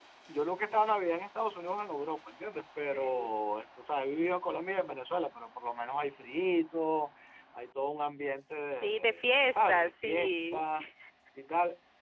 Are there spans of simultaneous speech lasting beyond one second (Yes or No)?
Yes